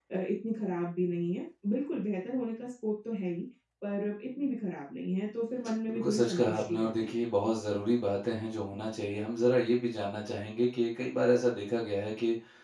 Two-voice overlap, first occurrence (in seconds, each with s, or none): 5.8 s